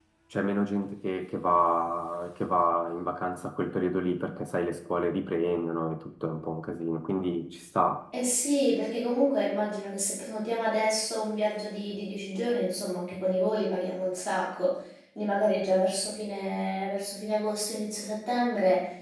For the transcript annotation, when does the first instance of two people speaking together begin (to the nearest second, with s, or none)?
none